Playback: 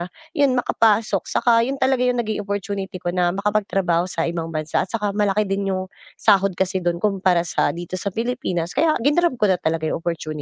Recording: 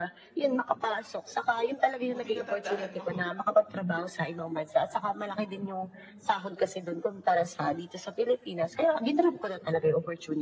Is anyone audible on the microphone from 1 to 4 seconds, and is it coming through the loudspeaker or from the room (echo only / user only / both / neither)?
both